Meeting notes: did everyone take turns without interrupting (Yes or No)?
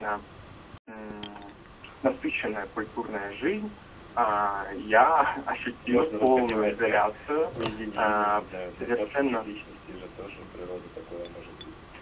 No